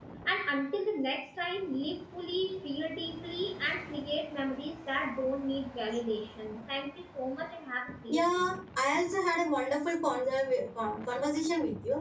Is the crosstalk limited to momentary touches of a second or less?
Yes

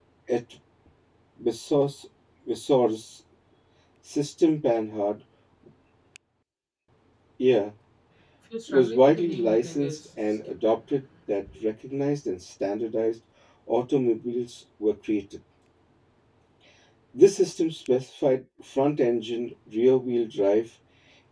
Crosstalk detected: Yes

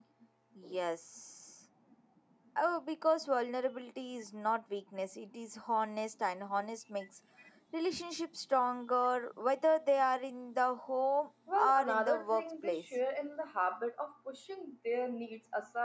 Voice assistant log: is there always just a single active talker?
No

